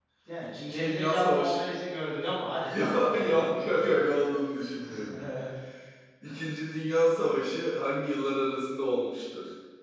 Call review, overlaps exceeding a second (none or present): present